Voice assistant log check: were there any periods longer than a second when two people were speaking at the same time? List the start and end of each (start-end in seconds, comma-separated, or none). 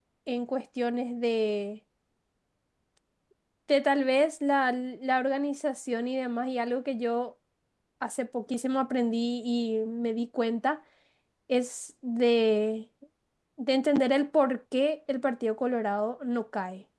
none